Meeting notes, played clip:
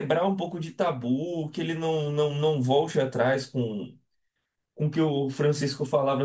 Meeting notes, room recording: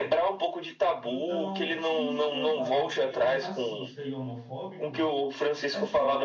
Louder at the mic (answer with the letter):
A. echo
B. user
A